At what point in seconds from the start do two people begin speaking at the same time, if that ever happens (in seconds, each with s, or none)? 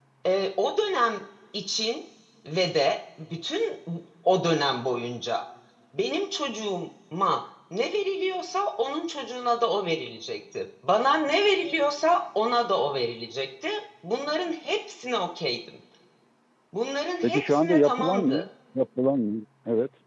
17.2 s